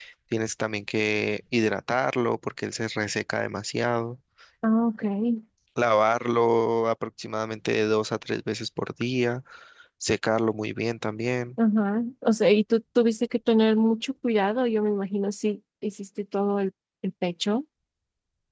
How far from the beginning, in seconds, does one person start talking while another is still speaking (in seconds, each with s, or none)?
none